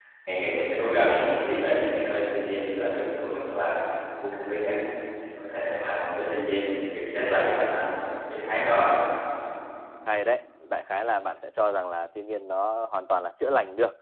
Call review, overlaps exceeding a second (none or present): none